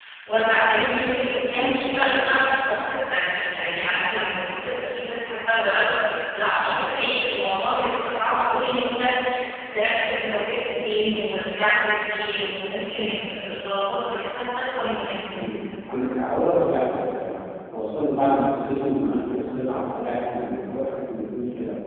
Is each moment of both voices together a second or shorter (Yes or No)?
Yes